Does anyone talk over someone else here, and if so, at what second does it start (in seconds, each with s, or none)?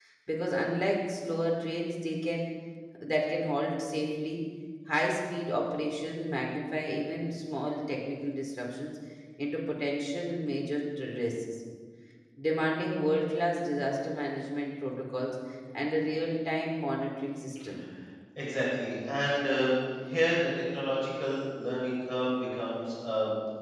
none